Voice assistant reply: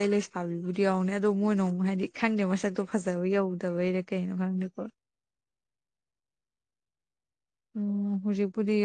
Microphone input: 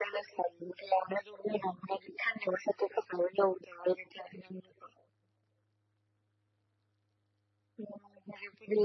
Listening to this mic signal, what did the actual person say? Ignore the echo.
none

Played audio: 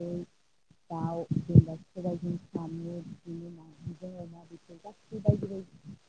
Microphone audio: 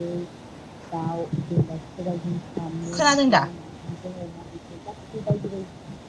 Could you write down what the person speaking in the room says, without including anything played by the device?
खोनादों दा

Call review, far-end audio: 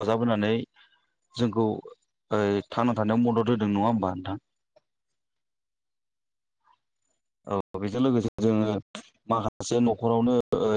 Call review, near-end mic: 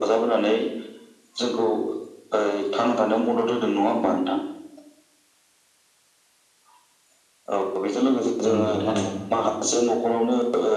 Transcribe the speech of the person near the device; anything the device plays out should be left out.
नंगौ थारैनो

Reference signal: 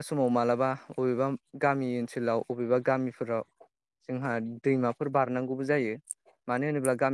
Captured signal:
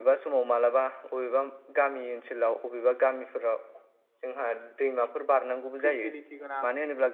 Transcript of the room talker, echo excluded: फेसिलिटि गोनां

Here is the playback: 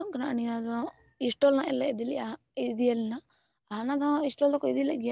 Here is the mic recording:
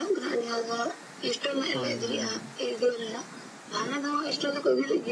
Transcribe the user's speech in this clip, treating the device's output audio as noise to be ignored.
ᱦᱳᱭ ᱦᱳᱭ ᱦᱳᱭ

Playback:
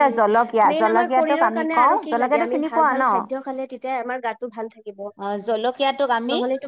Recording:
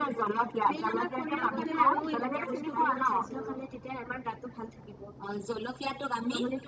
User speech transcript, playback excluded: আগতে ময়ো এইবোৰ বস্তু বহুত খাইছিলো

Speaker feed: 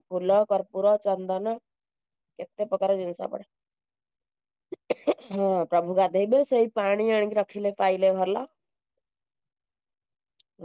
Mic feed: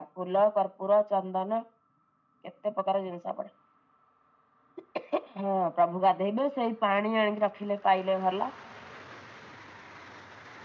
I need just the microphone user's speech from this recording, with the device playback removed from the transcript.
none

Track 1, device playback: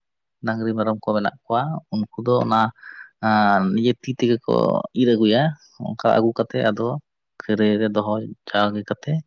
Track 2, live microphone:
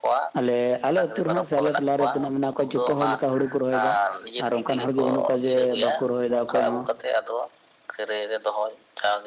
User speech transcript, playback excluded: ᱟᱞᱮ ᱟᱞᱮ ᱟᱹᱛᱩ ᱨᱮᱦᱟᱸᱜ ᱥᱮ ᱟᱞᱮ ᱴᱚᱞᱟᱨᱮ ᱛᱤᱱᱟᱹᱜ ᱢᱮᱱᱟᱜ ᱠᱚᱣᱟ ᱡᱚᱛᱚ ᱦᱚᱲ ᱞᱮᱠᱟ ᱦᱩᱲᱩ ᱠᱚ ᱨᱚᱦᱚᱭ ᱮᱫᱟ ᱟᱨ ᱚᱱᱠᱟᱱ ᱦᱚᱲᱜᱮ ᱵᱟᱹᱱᱩᱜ ᱠᱚᱣᱟ ᱡᱮ ᱵᱟᱠᱚ ᱨᱚᱦᱚᱭ ᱮᱫᱟ ᱚᱠᱚᱭ ᱦᱚᱸ

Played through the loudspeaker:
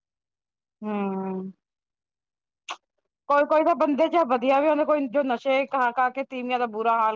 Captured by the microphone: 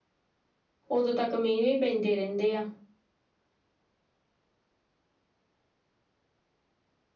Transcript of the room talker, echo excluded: ਉਦੋਂ ਤੱਕ ਮੀਂਹ ਹੀ ਪੈਂਦੇ ਰਹਿੰਦੇ ਆ।

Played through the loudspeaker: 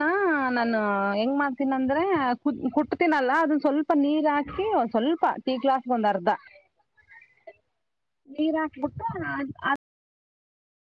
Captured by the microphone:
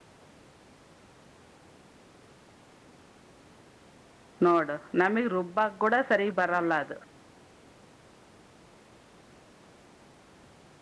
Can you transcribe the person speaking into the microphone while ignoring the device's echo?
ನೋಡು ನಮಗ್ ರುಬ್ಬಕ್ ಕೂಡ ಸರಿಗ್ ಬರಲ್ಲ ಅದು

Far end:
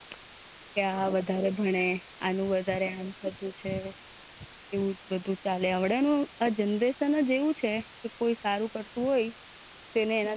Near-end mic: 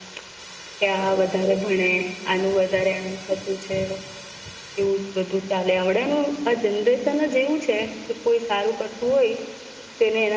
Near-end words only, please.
none

